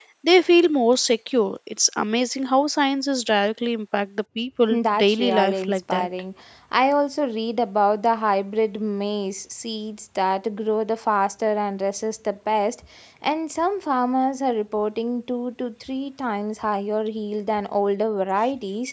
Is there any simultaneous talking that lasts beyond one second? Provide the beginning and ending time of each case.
4.7-6.1

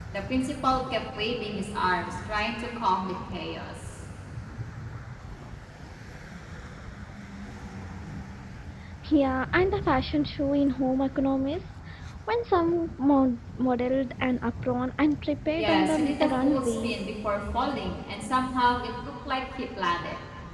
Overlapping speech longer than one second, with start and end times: 15.5-16.9

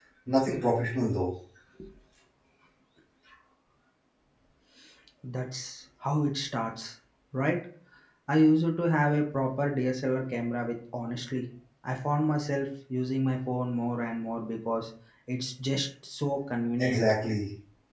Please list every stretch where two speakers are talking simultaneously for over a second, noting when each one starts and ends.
none

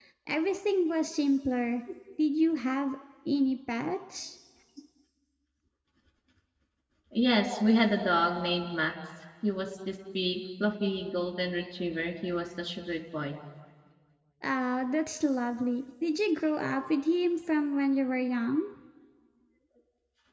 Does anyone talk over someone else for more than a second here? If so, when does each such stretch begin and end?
none

